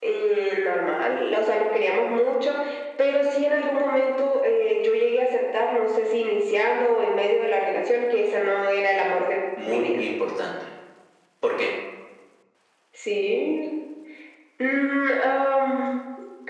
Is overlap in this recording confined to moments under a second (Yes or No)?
Yes